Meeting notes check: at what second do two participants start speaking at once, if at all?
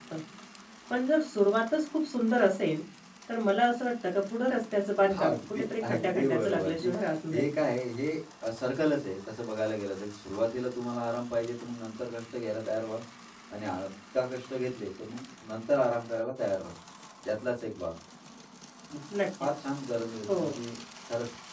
5.2 s

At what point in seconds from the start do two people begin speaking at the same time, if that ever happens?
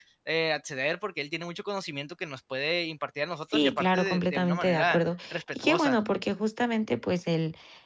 3.5 s

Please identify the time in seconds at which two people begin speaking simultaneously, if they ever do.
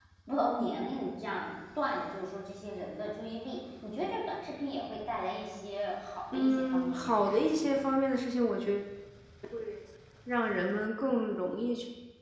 6.3 s

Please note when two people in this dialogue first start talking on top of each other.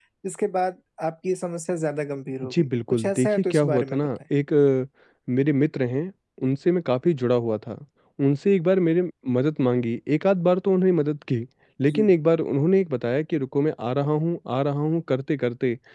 2.4 s

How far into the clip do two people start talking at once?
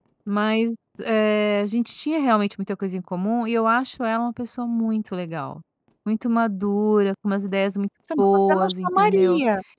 8.1 s

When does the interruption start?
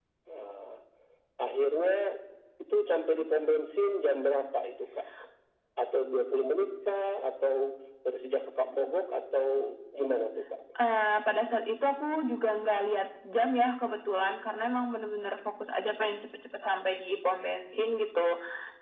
none

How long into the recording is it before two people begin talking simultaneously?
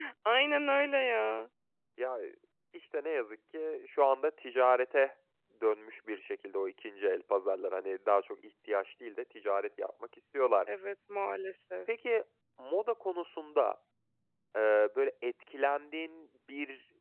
none

